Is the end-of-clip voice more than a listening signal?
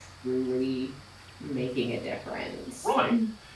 Yes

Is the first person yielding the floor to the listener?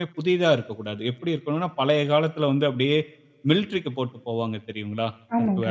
No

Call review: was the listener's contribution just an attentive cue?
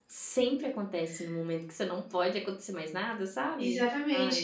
No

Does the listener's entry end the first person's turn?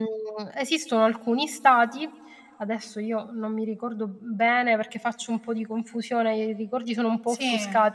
No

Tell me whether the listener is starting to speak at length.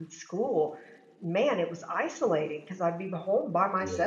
No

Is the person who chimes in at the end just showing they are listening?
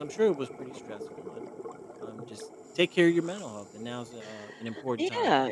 No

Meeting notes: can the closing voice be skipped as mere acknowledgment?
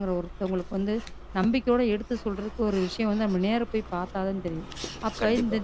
Yes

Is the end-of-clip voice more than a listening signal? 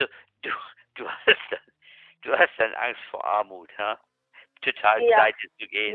Yes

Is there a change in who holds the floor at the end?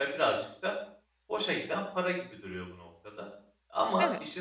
No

